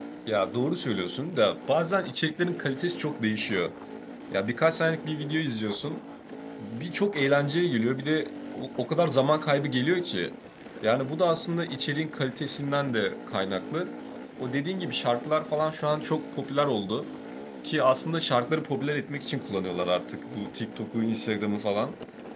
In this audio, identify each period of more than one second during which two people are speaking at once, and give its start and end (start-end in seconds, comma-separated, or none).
none